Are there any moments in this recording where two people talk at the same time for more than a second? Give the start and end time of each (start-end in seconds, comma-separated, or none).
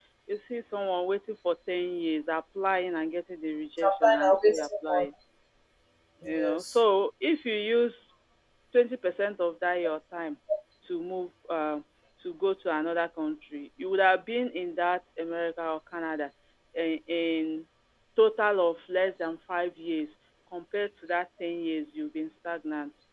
3.8-5.0